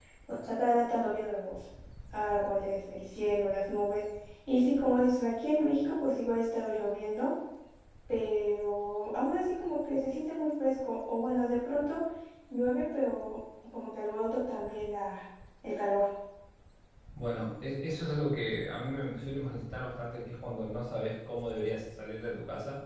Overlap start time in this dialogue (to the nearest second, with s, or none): none